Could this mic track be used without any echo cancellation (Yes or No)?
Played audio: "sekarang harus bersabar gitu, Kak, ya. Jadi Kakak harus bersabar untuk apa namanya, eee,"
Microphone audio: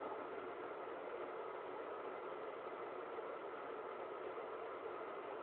Yes